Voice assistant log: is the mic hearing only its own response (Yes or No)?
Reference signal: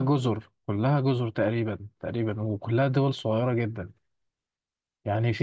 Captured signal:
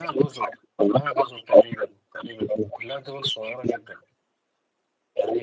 Yes